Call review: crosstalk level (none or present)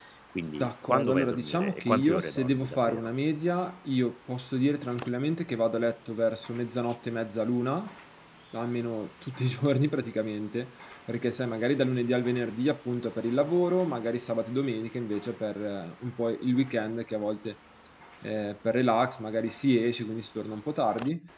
present